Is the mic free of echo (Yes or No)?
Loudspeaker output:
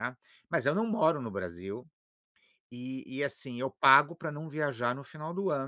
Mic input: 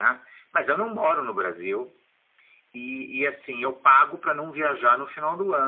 No